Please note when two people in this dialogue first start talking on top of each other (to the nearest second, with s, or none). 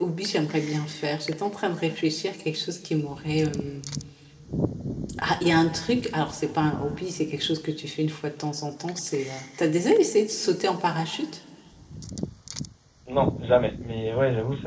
none